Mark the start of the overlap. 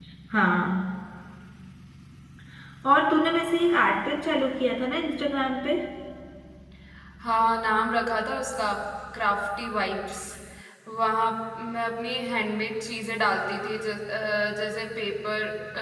none

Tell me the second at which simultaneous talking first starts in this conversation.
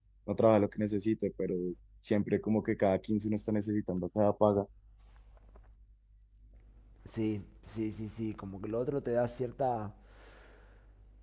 none

